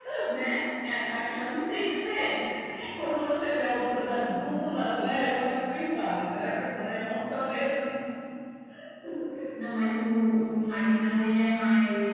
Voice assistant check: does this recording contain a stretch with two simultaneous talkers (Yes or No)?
No